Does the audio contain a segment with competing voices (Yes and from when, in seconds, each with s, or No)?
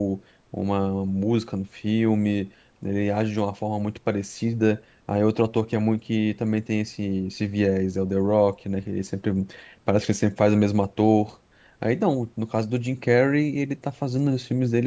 No